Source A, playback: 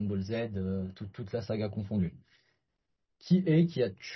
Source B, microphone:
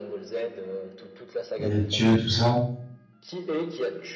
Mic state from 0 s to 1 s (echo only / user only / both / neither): echo only